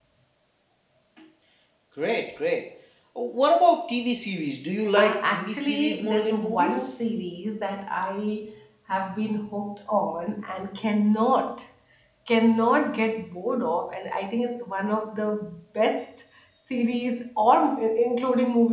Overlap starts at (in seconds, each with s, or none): 5.0 s